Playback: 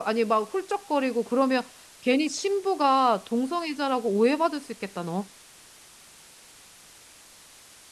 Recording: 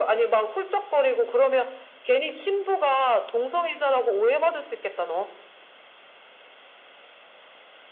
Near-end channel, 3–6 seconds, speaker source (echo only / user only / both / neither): echo only